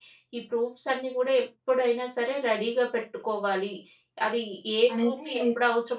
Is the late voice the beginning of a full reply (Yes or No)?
No